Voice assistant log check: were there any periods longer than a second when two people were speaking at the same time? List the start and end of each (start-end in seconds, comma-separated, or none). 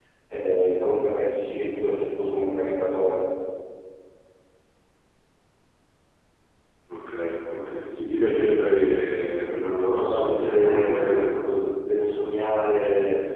9.9-11.2